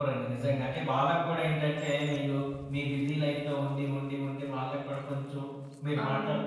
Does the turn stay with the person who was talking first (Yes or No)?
Yes